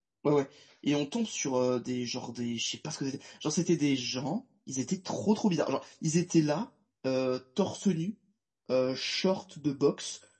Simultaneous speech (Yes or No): No